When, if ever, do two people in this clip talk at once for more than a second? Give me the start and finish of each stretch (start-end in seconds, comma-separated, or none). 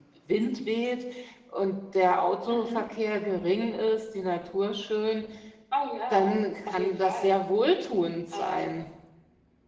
6.1-7.4